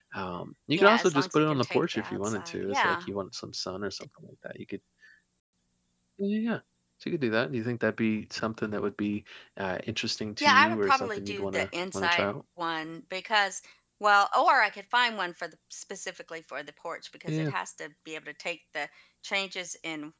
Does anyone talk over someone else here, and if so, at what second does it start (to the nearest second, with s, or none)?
1 s